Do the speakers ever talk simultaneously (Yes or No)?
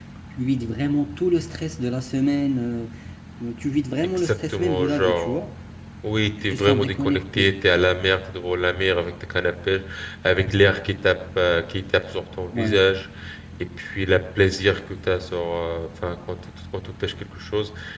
Yes